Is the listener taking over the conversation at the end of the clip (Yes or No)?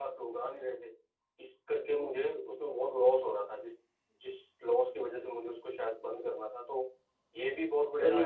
Yes